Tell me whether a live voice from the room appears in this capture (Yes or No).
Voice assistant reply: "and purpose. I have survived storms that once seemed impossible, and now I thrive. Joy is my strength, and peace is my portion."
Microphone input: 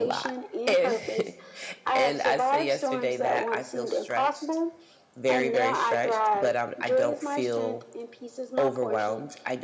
Yes